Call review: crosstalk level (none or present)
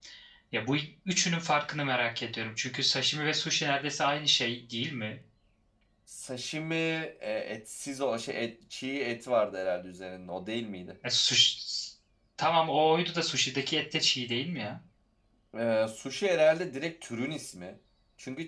none